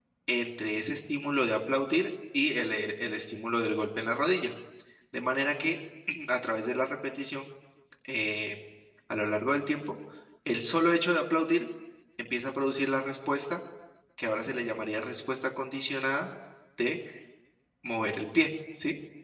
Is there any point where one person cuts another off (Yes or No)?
No